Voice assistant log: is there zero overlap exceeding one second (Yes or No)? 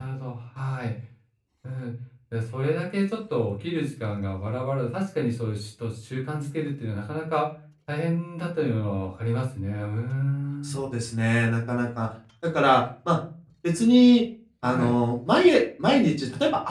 Yes